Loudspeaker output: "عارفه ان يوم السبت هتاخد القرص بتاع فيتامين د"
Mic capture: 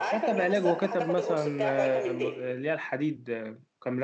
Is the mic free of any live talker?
No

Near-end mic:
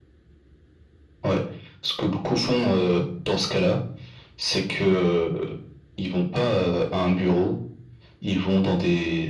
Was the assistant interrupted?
No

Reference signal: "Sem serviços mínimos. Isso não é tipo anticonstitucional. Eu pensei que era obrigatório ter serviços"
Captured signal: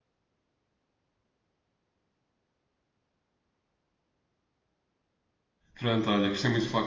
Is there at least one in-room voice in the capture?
Yes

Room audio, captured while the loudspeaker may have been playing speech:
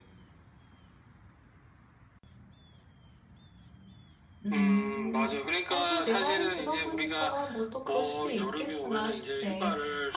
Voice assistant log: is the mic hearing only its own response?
No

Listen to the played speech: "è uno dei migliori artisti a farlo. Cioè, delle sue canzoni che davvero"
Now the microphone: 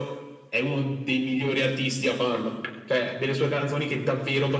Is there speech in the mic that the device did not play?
No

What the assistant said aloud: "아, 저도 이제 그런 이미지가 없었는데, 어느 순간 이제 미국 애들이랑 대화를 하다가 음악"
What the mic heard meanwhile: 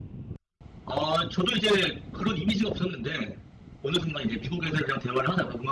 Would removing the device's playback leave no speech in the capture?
Yes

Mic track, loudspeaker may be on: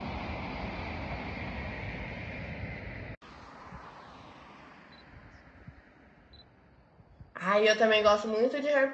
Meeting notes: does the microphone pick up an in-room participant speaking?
Yes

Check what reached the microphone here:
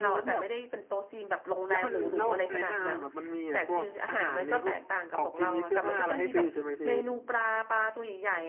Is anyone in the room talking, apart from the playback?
Yes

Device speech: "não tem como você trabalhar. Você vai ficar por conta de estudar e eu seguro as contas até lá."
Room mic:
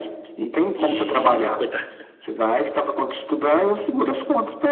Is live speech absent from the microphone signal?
No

